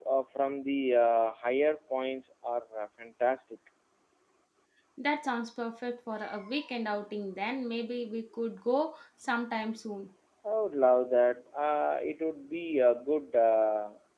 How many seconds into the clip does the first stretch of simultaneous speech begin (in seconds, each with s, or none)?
none